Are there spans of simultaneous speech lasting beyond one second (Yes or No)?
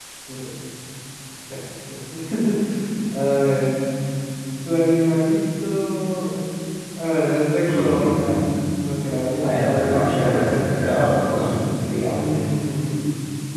Yes